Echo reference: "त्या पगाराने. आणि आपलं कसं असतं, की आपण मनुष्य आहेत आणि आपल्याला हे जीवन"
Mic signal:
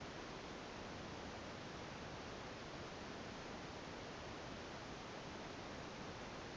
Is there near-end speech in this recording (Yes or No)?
No